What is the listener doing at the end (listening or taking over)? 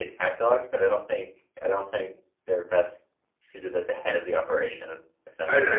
taking over